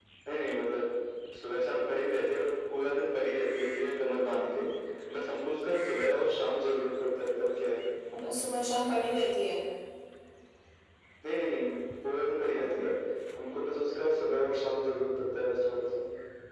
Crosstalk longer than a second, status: none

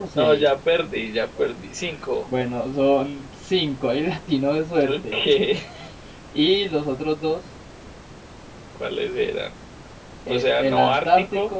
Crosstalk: present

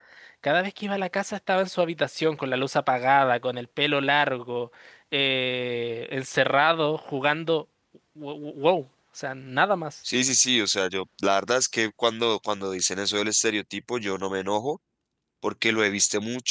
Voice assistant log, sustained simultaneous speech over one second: none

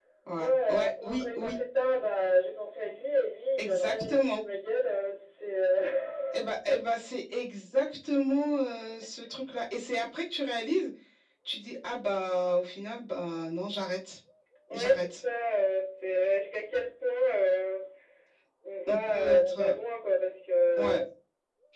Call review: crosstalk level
present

